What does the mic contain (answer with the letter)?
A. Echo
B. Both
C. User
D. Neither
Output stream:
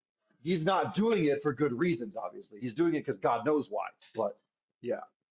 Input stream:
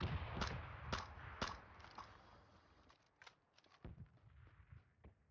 D